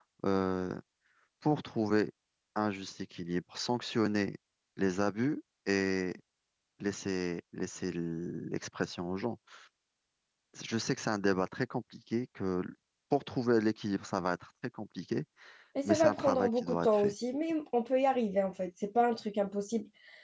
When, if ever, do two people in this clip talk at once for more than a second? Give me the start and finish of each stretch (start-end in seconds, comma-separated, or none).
15.8-17.1